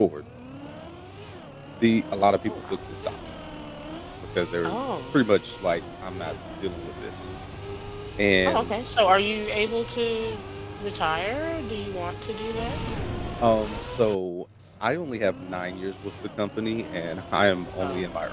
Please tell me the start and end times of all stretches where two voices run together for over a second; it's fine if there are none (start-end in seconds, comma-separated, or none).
none